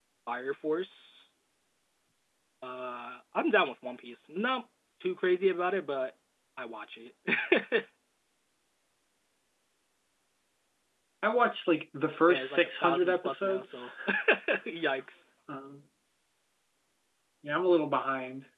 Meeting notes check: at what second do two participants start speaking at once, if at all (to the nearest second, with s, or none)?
12 s